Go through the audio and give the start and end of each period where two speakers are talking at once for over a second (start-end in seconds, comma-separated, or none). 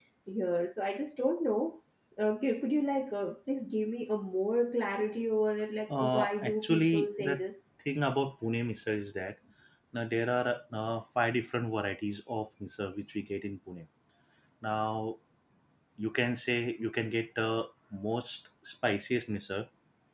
5.9-7.4